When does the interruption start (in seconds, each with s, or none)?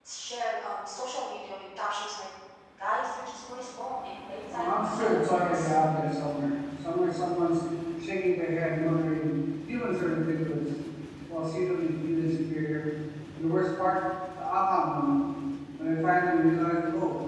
4.5 s